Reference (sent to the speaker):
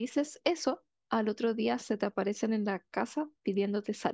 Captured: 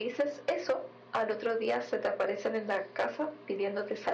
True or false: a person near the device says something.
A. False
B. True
A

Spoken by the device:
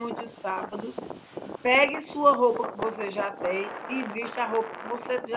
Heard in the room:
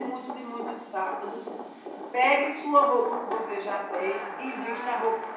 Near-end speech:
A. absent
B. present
B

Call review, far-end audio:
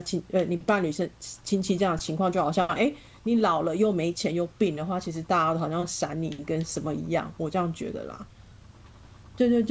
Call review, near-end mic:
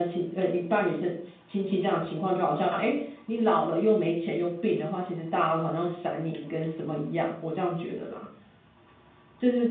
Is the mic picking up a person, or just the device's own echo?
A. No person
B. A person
A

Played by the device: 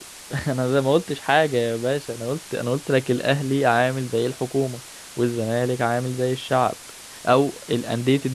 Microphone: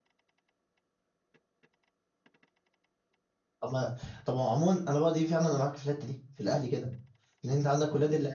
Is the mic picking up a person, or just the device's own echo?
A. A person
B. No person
A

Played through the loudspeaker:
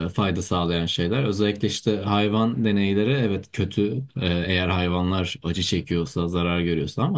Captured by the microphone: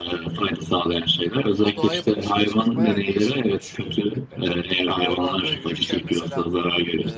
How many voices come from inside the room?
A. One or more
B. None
A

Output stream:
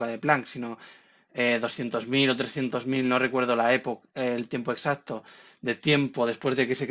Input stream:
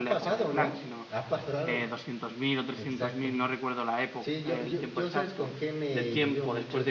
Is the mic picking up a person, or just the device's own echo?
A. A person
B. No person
A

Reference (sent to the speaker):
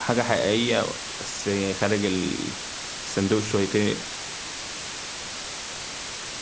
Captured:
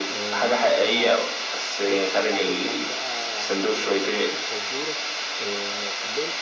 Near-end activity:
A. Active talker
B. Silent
A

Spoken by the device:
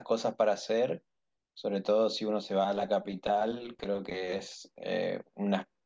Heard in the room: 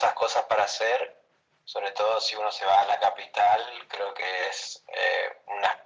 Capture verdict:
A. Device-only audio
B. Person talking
A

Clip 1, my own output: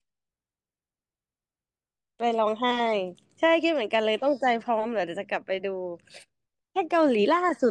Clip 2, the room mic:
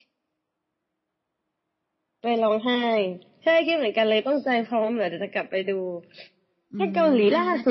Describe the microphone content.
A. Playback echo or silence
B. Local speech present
B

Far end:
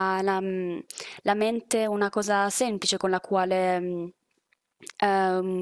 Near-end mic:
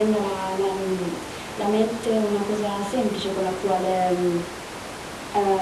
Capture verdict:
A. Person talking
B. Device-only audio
B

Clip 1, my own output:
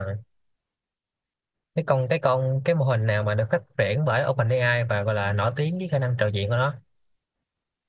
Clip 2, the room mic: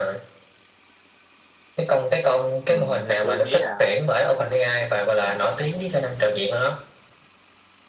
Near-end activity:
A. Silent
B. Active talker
B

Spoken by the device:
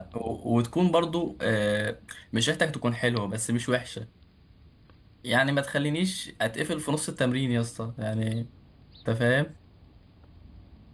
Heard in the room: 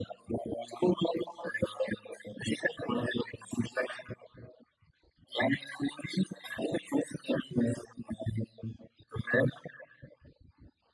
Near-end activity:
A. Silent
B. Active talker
A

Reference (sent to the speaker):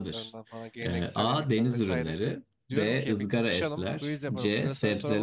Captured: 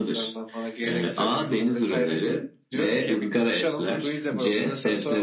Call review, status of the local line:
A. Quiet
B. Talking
A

